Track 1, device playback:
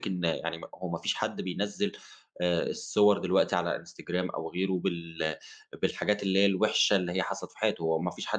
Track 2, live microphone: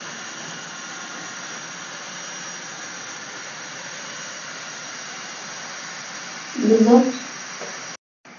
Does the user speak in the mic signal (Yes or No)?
Yes